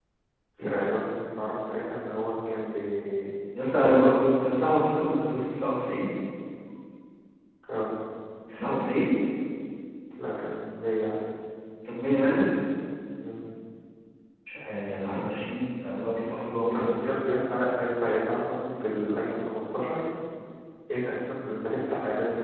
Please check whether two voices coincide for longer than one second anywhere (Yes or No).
No